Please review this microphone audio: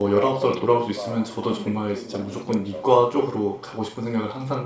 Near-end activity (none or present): present